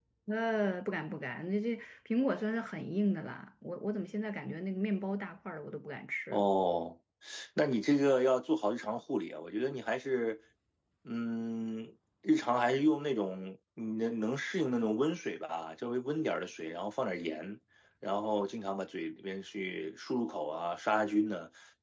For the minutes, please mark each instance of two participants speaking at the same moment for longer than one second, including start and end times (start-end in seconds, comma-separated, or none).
none